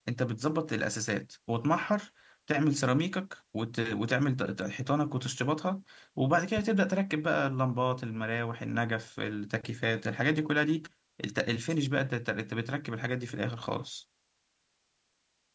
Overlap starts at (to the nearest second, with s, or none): none